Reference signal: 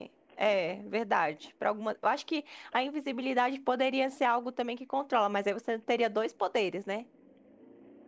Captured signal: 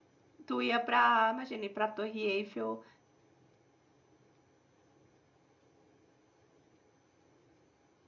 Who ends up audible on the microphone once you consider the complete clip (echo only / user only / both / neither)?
user only